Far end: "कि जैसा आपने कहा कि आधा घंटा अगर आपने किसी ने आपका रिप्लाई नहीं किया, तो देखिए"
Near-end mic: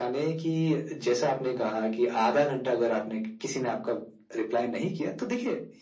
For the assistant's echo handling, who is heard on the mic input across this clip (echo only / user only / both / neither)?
echo only